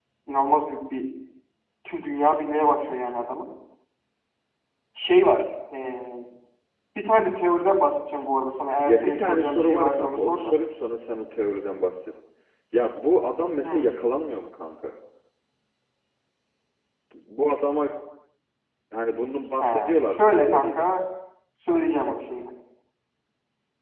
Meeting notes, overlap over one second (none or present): present